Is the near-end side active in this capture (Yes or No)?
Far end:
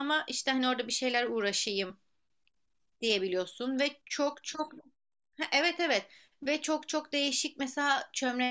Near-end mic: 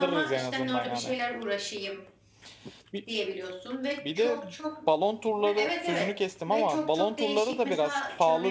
Yes